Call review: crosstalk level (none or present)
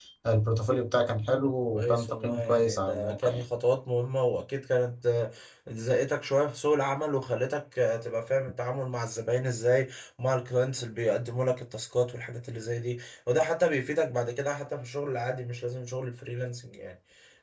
present